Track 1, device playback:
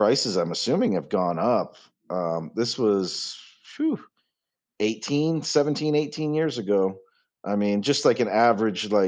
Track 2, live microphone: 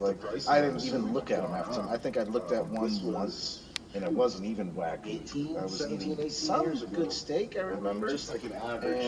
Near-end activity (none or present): present